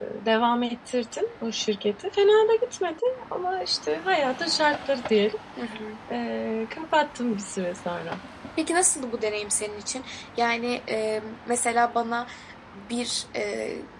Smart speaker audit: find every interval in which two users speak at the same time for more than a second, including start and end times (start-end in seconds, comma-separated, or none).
none